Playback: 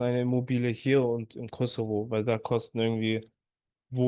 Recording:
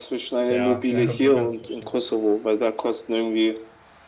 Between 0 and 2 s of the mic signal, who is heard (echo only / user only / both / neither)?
both